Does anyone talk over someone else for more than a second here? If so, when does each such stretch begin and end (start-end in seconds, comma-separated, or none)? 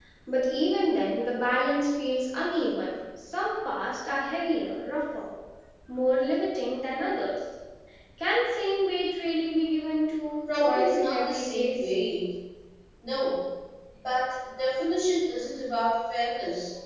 10.5-11.9